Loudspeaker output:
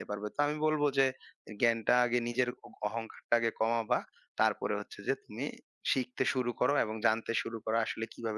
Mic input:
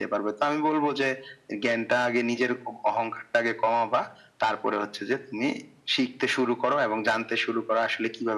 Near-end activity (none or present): none